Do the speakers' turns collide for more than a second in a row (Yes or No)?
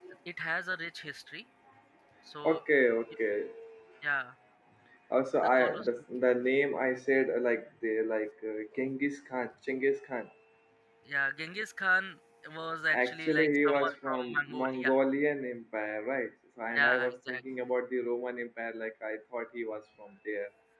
Yes